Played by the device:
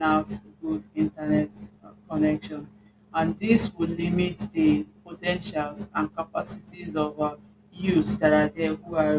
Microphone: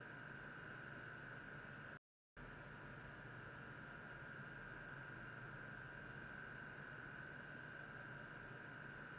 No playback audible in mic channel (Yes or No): Yes